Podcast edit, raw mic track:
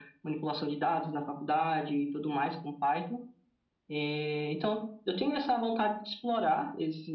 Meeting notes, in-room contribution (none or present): none